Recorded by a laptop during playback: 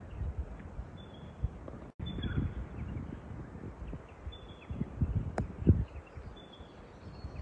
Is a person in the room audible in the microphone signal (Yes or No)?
No